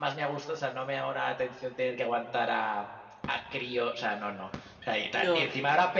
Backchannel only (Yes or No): Yes